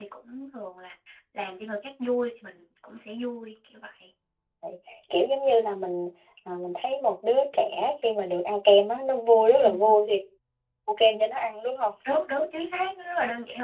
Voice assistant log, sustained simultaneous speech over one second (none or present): none